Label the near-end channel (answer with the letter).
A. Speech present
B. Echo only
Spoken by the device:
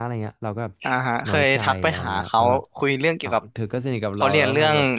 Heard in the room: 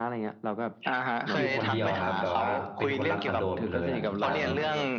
A